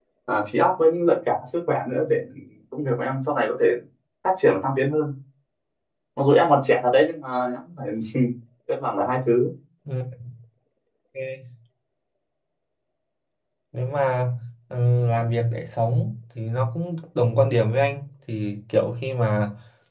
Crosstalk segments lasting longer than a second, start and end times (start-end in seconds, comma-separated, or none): none